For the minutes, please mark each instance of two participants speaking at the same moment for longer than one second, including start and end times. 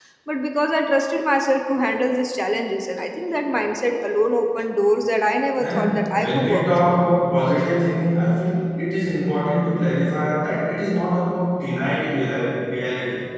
5.6-6.9

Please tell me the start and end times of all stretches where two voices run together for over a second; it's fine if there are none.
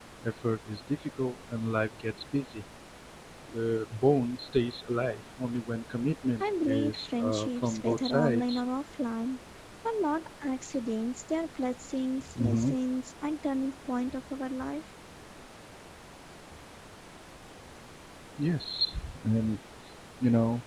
6.4-8.6

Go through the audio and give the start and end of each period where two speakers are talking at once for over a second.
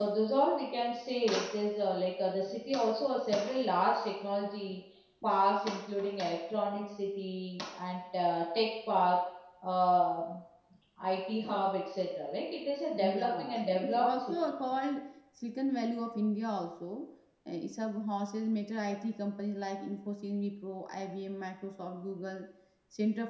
12.9-14.3

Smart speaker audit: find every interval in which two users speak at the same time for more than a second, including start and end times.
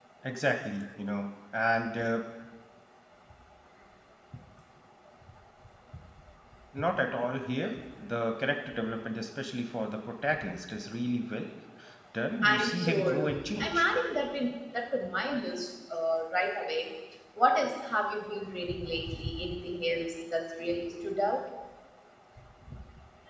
12.4-13.8

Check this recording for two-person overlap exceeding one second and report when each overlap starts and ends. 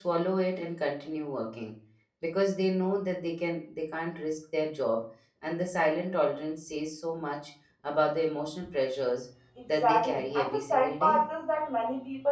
9.8-11.2

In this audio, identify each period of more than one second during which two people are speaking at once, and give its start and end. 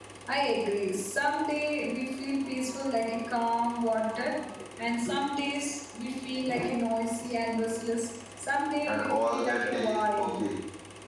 8.9-10.4

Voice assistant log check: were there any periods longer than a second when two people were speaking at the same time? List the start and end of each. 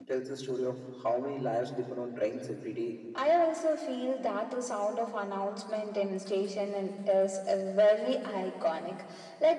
none

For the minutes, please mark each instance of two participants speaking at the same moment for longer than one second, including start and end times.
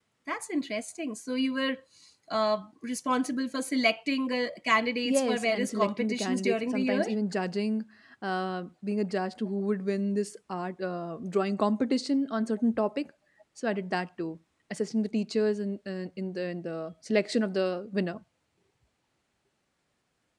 5.0-7.1

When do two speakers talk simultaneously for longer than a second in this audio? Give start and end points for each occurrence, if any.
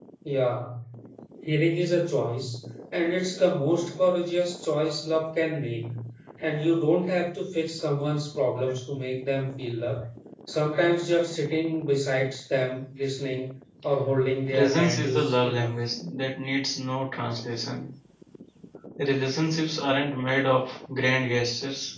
14.5-15.8

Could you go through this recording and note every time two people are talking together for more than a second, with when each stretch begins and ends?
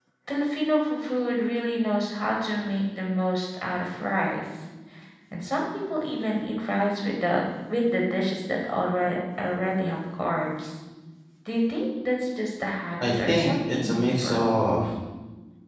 13.0-14.4

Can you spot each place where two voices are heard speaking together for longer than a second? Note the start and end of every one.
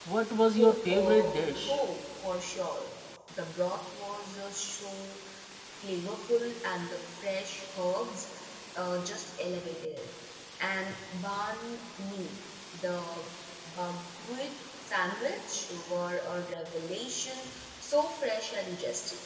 0.6-1.8

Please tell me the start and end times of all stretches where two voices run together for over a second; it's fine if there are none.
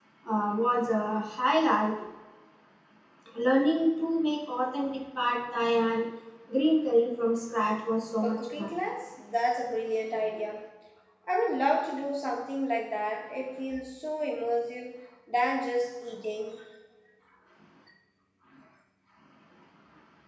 none

